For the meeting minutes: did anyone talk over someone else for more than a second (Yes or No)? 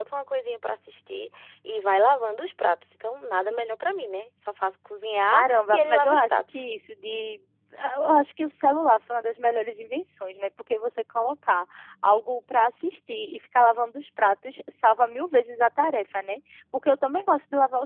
Yes